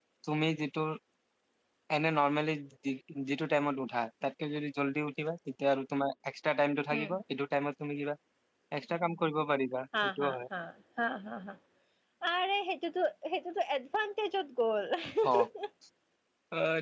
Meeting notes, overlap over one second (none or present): none